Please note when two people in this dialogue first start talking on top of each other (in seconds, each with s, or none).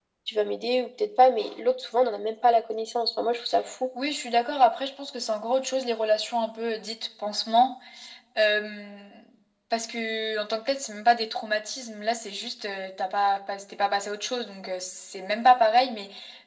none